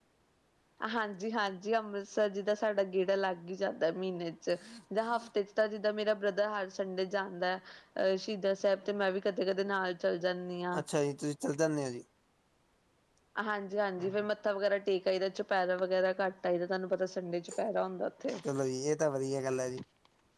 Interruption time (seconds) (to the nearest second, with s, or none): none